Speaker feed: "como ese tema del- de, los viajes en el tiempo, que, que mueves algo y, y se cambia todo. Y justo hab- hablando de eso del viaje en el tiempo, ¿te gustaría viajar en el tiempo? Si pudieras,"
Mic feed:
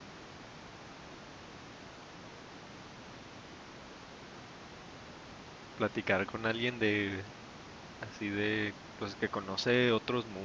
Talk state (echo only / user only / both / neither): user only